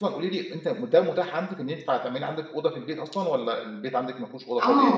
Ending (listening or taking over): taking over